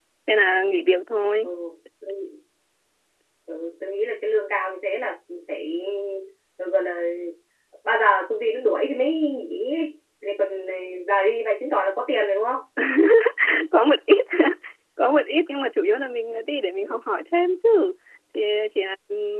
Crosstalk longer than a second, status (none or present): none